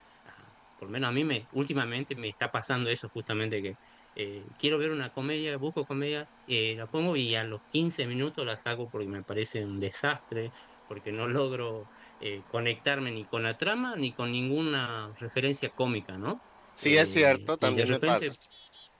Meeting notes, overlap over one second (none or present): present